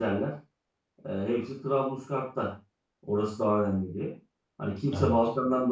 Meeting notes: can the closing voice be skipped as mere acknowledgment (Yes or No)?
Yes